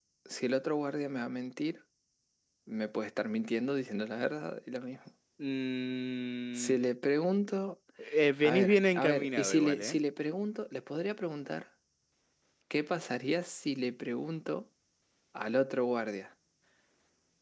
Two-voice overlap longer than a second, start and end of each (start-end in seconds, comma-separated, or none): 8.4-10.0